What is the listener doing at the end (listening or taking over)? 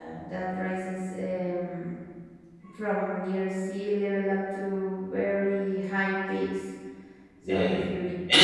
taking over